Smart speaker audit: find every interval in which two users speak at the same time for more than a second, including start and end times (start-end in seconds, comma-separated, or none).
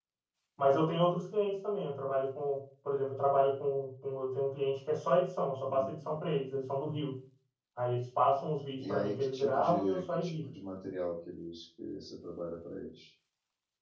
8.8-10.3